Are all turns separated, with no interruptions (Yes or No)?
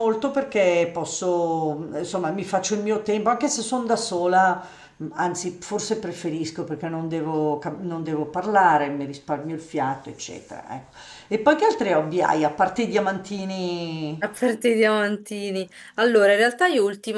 Yes